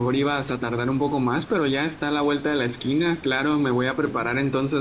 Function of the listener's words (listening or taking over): listening